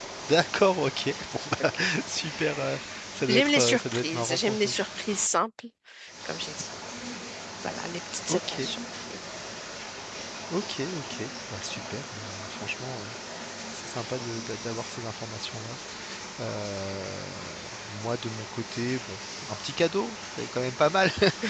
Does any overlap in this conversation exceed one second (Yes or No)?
Yes